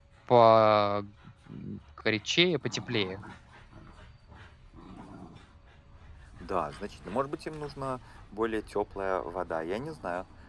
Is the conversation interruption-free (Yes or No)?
Yes